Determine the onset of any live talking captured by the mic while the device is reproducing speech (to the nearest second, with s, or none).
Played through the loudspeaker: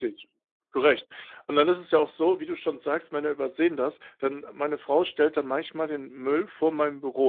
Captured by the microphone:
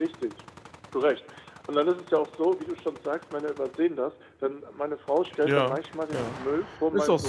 5 s